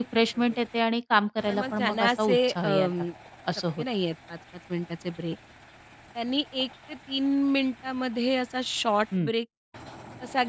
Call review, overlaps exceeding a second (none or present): present